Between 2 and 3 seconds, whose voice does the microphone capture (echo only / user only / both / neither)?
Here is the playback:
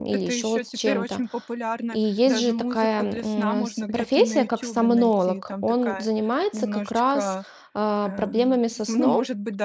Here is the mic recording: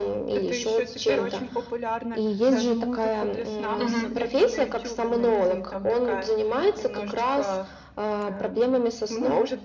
echo only